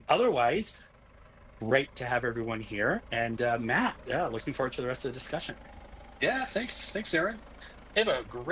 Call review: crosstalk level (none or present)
none